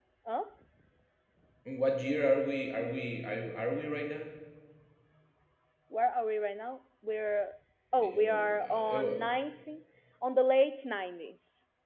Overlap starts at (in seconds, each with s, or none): 8.0 s